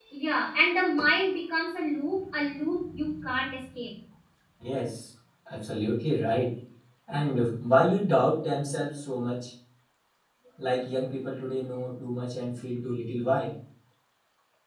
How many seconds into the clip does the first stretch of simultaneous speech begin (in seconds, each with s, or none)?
none